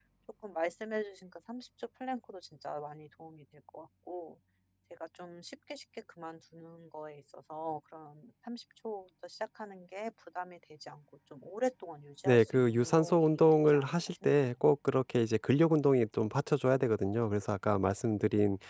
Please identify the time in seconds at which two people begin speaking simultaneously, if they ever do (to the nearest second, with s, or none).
12 s